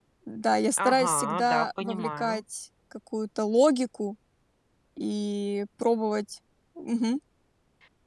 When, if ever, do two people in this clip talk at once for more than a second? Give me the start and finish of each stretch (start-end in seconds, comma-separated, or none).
0.8-2.4